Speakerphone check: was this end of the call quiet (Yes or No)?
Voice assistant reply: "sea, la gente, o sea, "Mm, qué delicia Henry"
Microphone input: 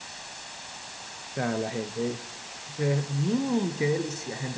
Yes